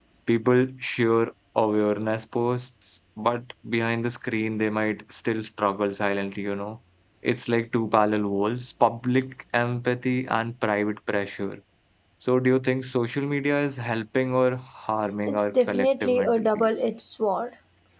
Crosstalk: present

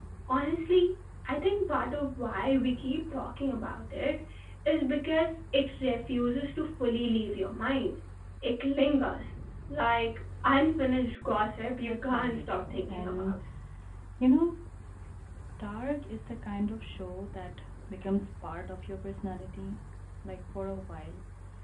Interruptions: present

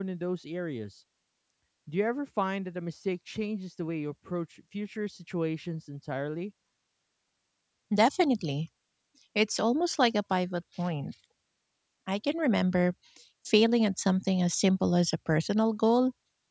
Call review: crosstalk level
none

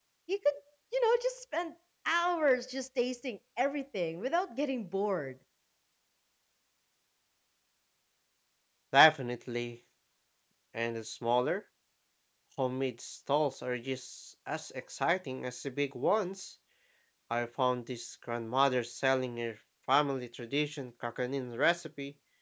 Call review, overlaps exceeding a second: none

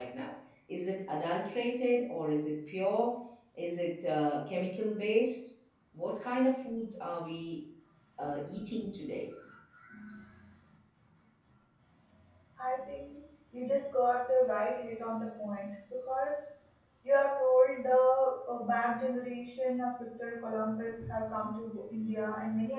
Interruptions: none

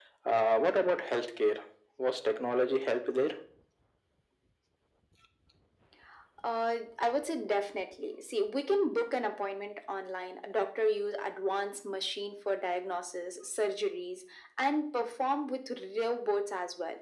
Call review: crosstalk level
none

